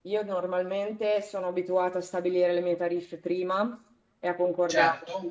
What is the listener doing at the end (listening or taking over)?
listening